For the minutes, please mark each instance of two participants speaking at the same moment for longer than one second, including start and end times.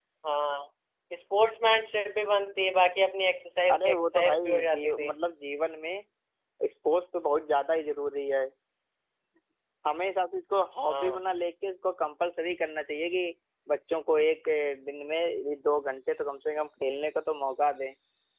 3.7-5.1

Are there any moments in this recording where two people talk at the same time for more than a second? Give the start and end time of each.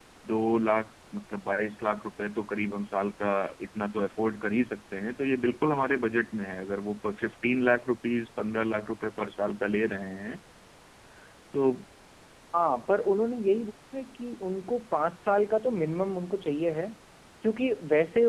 none

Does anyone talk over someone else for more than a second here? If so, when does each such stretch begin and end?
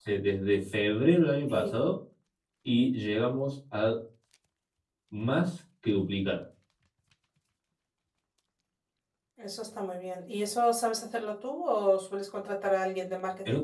none

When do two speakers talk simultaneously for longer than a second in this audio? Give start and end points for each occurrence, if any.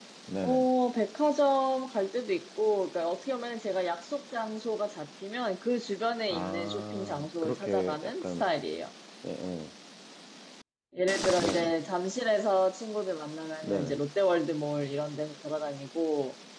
6.3-8.4

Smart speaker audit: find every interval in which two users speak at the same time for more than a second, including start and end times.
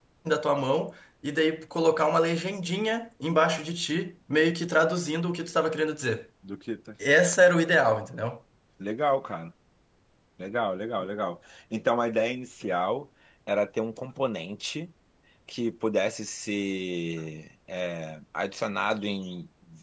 none

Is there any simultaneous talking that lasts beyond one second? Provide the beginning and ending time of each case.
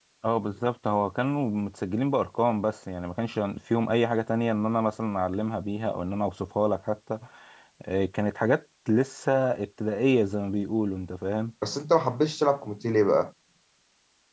none

